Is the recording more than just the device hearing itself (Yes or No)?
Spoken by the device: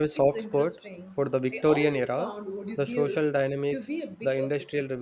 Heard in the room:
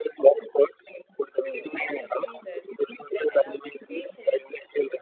Yes